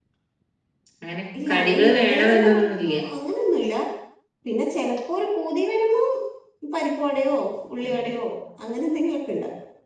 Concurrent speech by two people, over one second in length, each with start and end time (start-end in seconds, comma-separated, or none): 1.5-2.8